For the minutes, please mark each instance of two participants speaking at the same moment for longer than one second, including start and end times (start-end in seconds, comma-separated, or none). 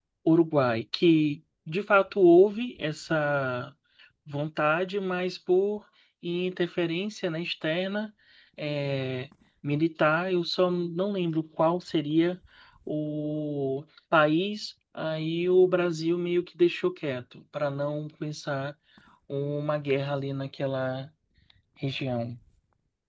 none